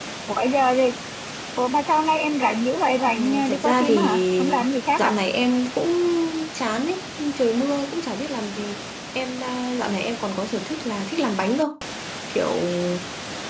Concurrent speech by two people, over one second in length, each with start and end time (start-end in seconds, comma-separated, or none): 3.0-5.1